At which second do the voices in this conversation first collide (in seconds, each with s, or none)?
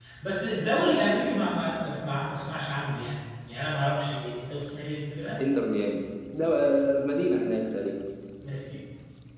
none